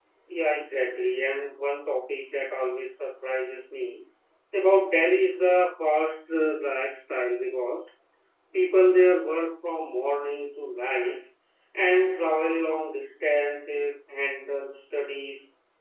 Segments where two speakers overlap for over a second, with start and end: none

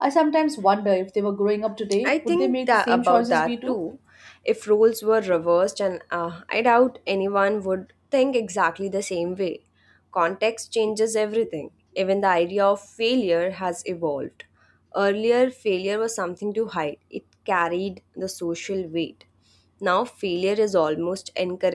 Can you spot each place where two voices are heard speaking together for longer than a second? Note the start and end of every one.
2.0-3.8

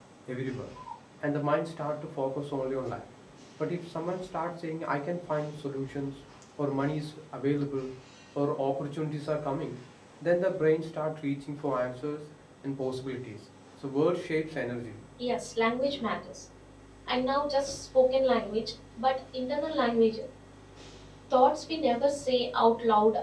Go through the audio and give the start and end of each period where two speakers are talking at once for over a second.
none

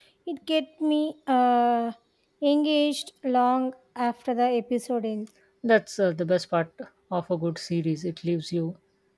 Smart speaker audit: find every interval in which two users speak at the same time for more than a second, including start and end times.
none

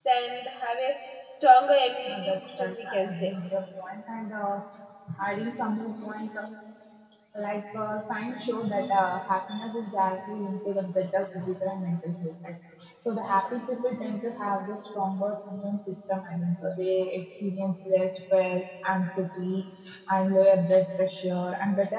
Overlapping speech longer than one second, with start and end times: 2.1-3.3

